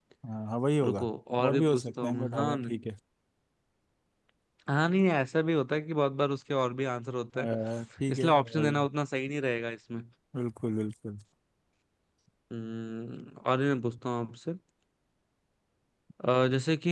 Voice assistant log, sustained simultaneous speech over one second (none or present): present